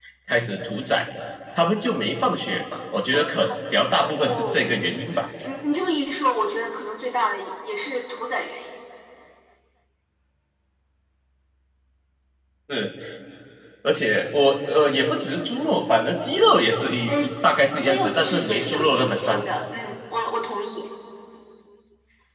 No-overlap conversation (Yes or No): No